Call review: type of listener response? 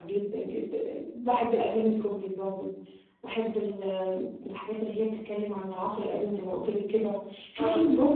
listening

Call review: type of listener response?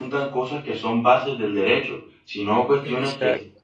listening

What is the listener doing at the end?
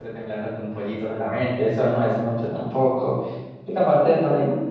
taking over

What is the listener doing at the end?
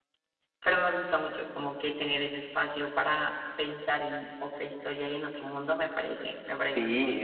taking over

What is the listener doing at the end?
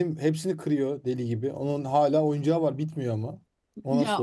taking over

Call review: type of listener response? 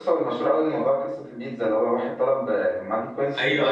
taking over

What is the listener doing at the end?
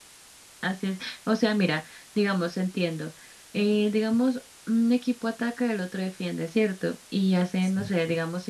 listening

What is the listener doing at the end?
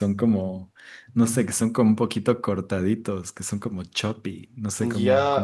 taking over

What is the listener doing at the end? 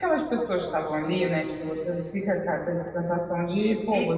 taking over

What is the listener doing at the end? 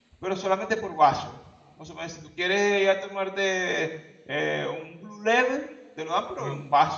listening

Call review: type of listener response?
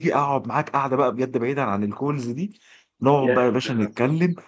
listening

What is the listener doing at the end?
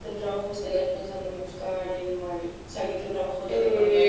taking over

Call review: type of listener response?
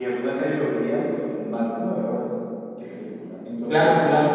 listening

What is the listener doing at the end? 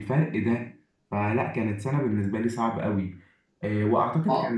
listening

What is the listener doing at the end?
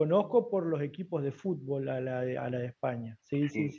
taking over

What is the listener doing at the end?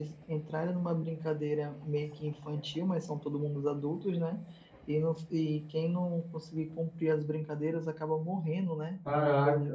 taking over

